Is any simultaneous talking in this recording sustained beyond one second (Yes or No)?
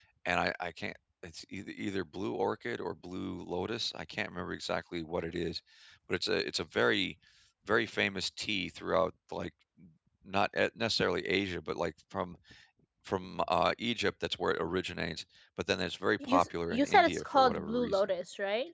Yes